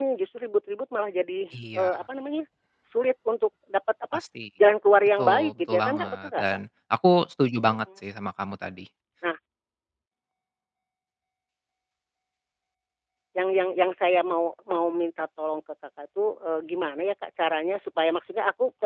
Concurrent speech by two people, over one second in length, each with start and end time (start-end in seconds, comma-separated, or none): 5.2-6.4